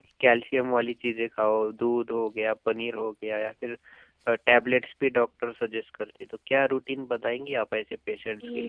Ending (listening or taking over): taking over